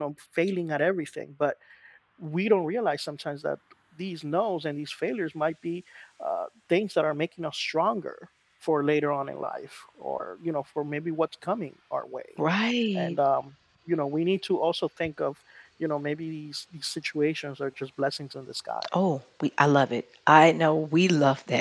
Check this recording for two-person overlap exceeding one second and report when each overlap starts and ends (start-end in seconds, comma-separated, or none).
none